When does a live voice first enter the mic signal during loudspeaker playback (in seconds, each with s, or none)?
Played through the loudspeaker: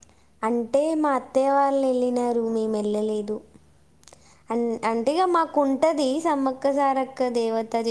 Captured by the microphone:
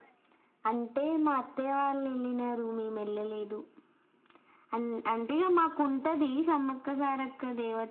none